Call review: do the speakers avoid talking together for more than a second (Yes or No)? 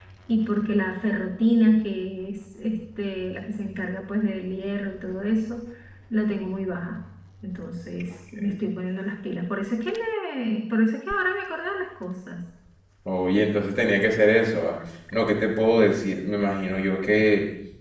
Yes